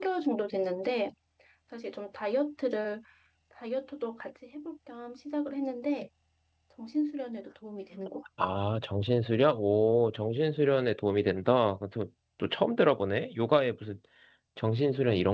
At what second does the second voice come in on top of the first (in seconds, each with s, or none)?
none